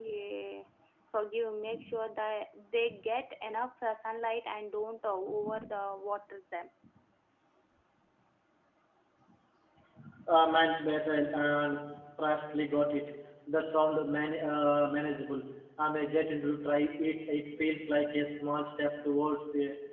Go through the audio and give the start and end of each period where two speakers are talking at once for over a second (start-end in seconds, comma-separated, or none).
none